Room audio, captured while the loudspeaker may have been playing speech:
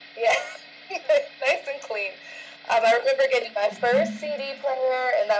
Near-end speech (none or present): present